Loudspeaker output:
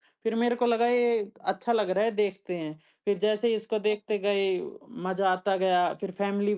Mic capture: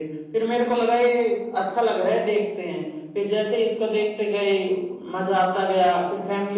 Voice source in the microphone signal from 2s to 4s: echo only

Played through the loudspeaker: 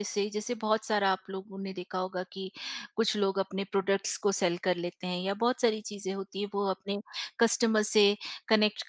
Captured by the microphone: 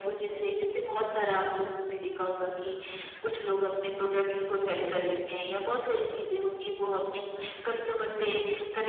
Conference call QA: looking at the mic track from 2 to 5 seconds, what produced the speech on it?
echo only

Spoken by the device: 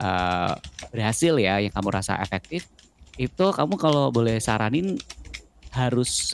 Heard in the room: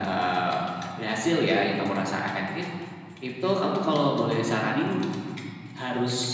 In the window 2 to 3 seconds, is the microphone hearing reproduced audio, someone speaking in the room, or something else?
echo only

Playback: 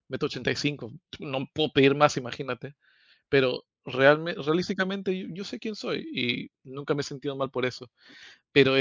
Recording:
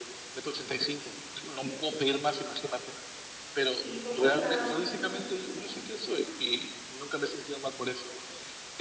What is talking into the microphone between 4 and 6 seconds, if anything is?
both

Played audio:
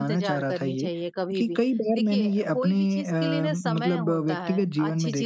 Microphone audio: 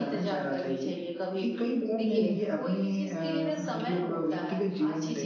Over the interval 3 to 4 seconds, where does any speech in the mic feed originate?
echo only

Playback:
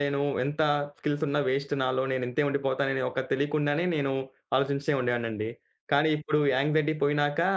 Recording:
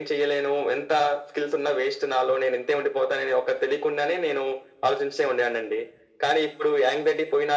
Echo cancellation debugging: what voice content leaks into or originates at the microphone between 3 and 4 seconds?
echo only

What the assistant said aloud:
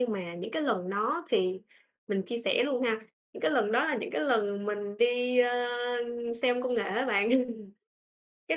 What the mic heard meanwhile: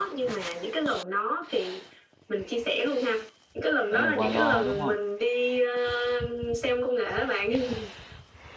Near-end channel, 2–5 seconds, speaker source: both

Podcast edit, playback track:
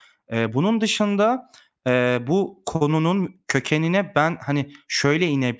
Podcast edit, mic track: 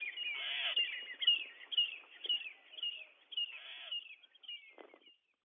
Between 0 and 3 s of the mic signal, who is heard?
neither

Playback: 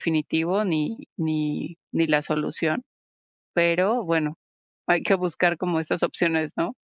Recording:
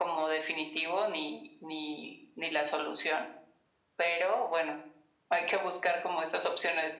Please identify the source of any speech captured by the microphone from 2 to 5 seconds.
echo only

